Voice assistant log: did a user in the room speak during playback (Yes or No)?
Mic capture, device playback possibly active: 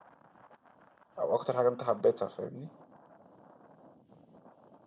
Yes